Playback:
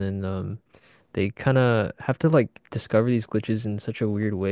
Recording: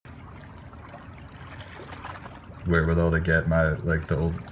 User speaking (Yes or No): Yes